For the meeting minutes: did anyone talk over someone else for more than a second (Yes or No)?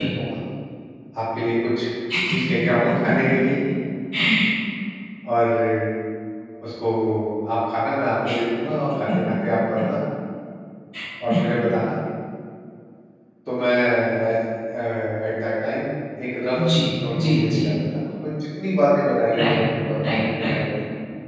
No